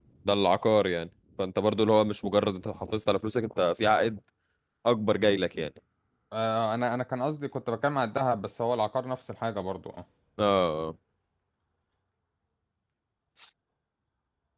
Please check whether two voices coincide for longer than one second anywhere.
No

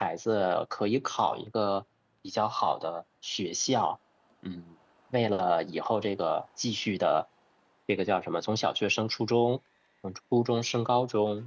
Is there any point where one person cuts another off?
No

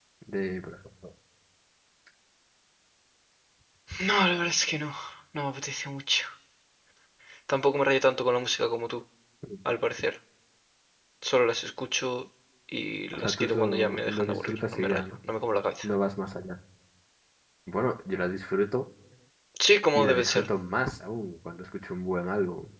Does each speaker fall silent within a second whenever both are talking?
No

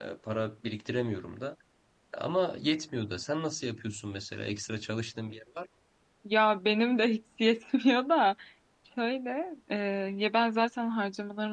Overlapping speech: No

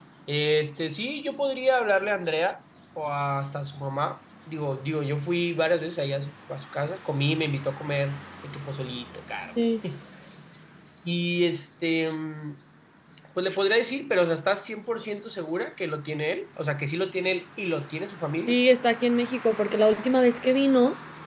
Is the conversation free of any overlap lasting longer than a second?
Yes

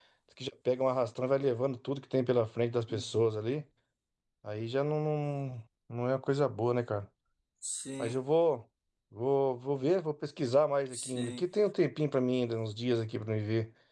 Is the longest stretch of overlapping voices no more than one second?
Yes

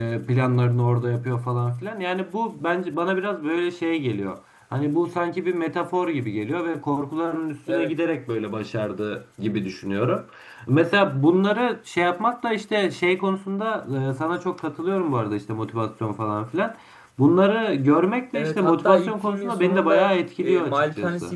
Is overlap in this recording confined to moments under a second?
No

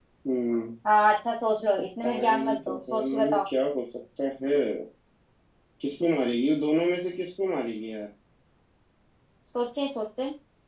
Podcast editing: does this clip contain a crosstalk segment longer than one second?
Yes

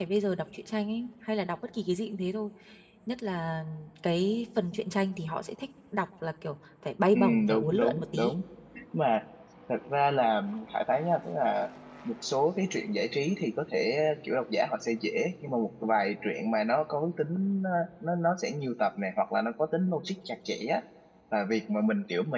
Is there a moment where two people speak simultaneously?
Yes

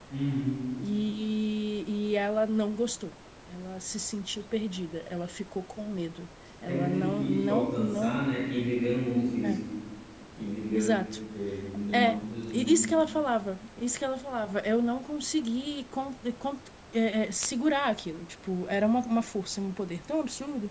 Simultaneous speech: Yes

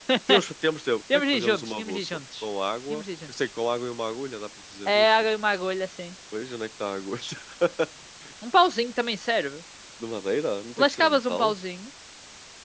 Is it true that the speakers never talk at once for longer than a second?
No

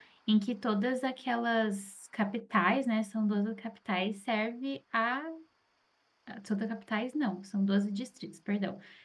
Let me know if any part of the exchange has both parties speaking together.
No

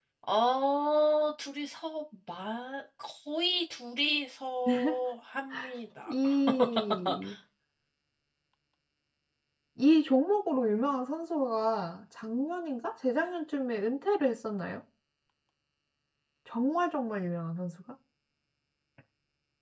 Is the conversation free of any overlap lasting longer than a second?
Yes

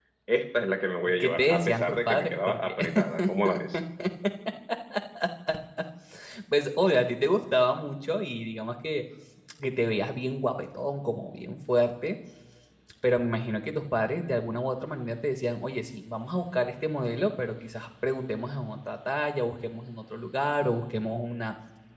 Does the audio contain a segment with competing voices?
Yes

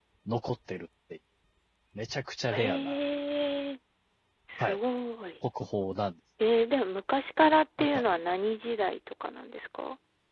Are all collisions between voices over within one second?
Yes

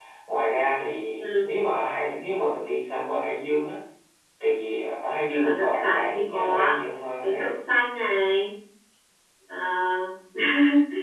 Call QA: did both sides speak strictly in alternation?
No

